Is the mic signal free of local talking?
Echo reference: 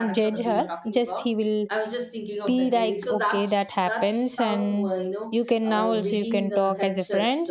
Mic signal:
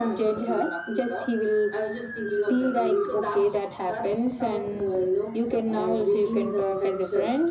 Yes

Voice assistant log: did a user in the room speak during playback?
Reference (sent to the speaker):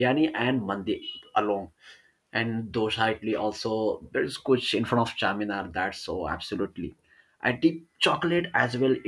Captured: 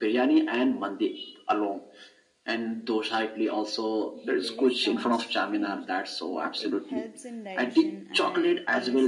Yes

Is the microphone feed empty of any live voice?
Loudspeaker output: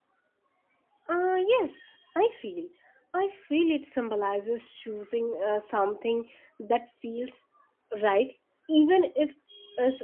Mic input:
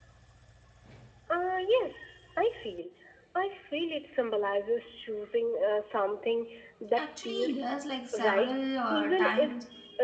No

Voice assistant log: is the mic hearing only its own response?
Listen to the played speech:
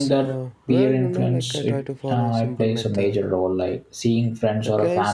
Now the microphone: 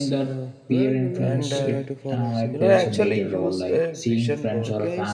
No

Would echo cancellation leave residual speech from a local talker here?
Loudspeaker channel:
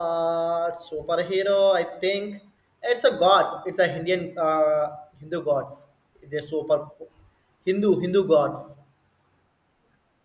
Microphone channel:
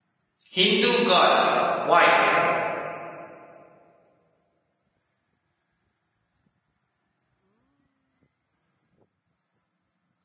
Yes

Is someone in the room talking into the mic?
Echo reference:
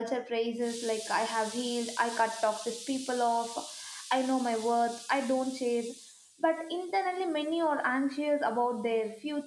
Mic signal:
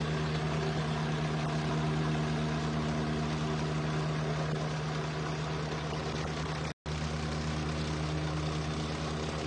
No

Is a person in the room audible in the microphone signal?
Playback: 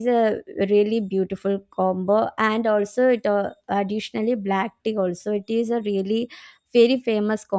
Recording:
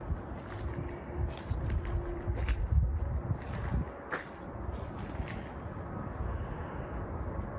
No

